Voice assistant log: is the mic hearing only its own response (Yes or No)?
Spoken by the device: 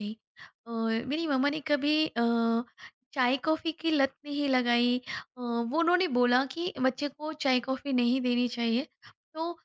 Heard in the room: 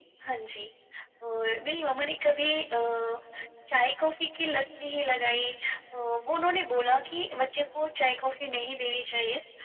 Yes